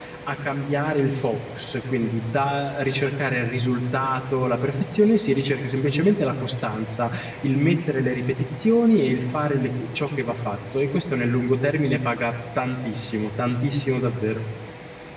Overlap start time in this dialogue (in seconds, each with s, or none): none